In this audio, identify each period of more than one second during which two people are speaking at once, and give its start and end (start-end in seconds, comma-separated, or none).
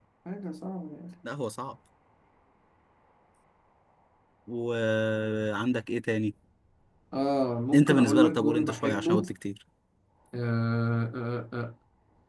7.7-9.3